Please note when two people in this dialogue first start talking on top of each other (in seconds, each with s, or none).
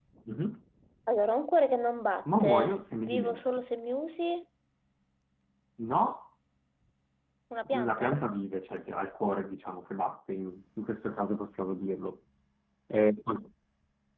2.4 s